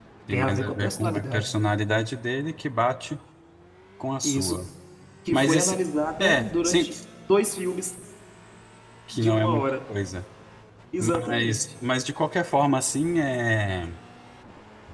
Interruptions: present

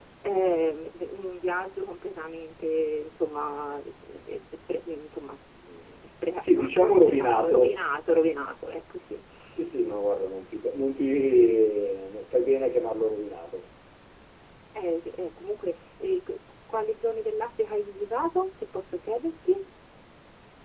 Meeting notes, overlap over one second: present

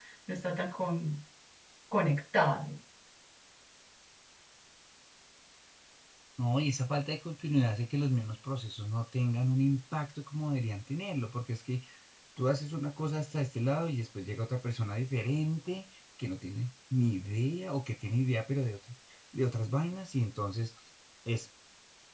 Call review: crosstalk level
none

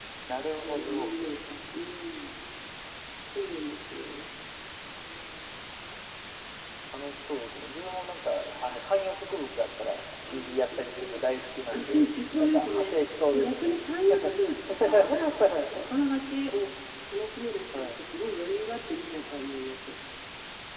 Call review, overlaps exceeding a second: present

